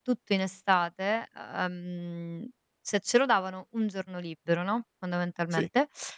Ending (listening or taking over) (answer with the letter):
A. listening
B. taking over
A